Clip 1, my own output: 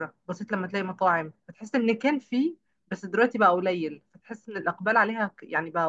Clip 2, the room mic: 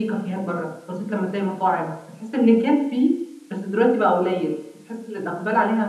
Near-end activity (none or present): none